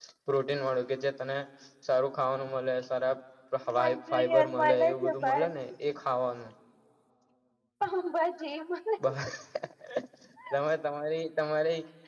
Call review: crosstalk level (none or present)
present